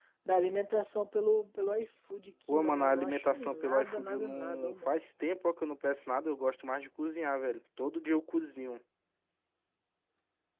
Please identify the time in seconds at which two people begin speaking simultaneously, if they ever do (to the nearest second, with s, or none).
2 s